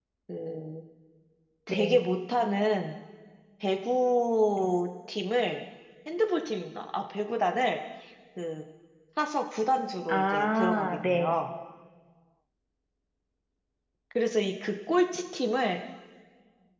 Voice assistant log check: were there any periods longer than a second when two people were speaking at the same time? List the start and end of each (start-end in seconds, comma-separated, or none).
10.1-11.4